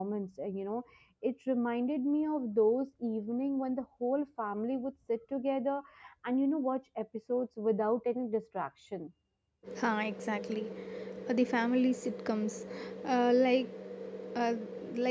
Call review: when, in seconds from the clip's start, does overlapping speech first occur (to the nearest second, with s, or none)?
none